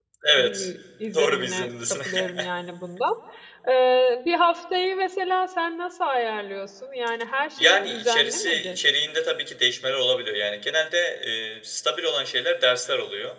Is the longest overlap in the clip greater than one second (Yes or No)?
Yes